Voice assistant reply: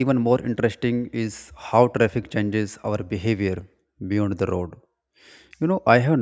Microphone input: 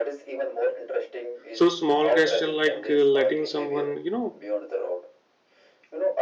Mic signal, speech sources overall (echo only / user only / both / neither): both